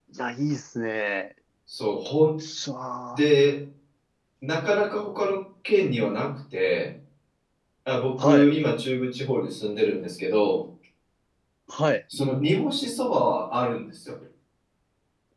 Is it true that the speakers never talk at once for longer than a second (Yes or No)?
Yes